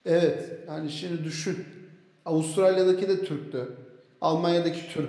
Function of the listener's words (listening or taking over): listening